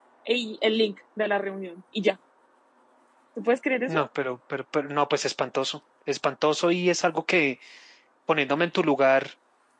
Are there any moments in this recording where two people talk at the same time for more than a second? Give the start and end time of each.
none

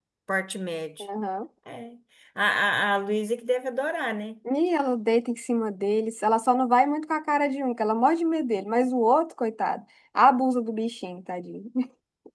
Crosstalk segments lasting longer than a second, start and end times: none

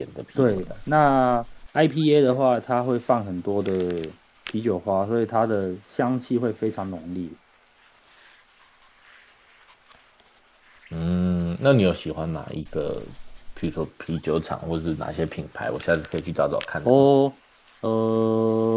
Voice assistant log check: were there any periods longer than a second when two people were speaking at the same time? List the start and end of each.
none

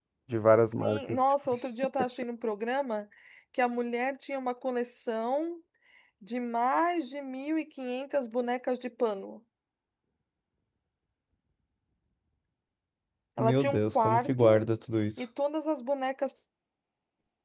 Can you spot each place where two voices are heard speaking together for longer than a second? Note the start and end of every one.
13.4-14.6

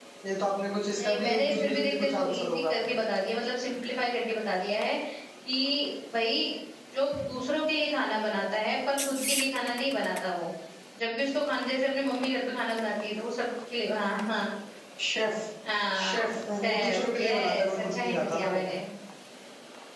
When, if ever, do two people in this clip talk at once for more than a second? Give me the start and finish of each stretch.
0.9-2.8, 16.0-18.6

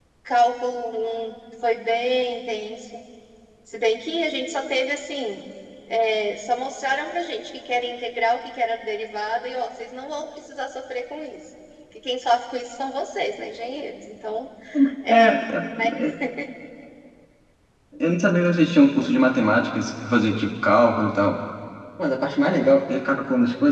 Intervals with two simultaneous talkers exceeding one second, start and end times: none

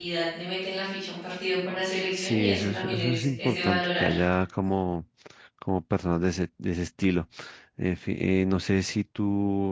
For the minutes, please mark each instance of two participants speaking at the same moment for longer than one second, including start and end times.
2.2-4.1

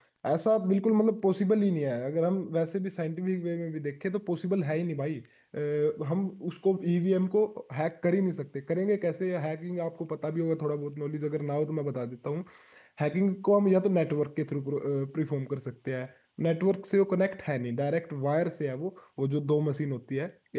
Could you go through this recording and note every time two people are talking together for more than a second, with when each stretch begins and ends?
none

